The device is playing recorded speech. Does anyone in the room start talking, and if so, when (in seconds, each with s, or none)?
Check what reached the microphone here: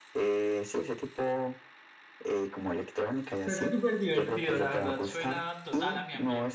3.4 s